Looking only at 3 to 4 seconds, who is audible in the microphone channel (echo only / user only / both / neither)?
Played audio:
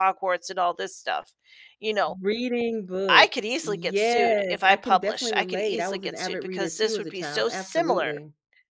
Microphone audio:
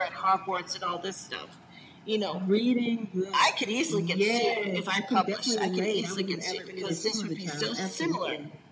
echo only